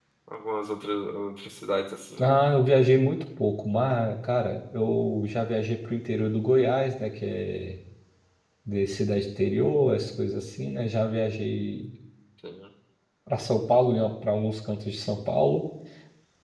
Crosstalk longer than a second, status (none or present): none